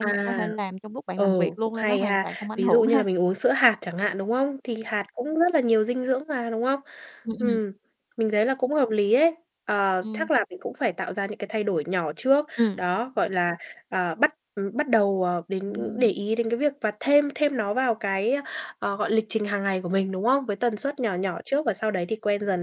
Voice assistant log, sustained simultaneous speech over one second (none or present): present